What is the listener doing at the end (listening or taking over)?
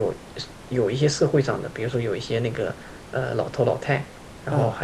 listening